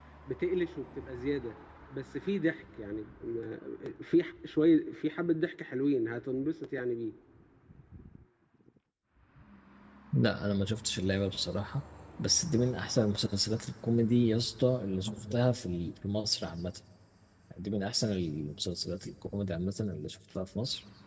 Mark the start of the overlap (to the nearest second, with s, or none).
none